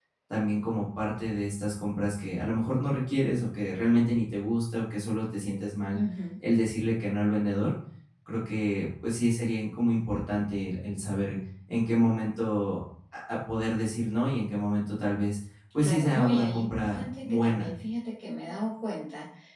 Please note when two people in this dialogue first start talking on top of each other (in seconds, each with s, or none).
15.8 s